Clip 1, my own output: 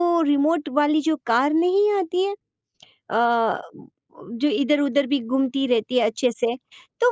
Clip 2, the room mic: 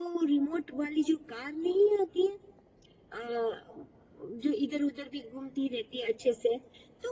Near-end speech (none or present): none